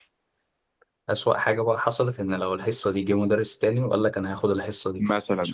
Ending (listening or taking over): taking over